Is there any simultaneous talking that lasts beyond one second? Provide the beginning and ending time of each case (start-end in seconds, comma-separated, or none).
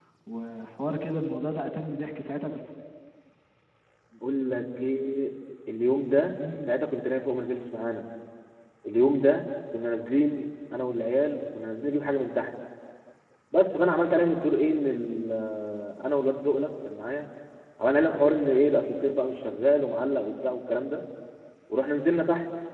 none